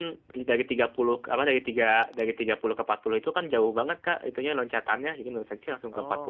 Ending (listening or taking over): taking over